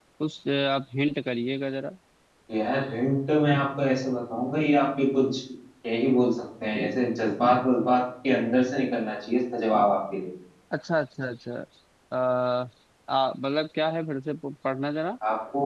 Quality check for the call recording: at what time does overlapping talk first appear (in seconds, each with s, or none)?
none